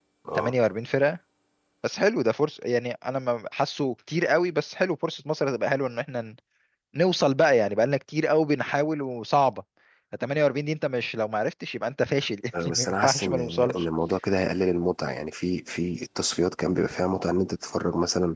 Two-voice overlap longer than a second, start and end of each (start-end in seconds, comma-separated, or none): 12.6-13.8